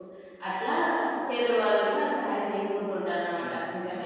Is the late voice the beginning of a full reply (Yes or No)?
Yes